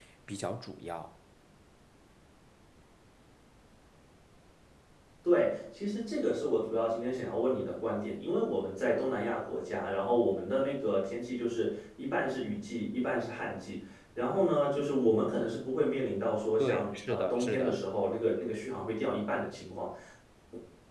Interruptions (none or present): present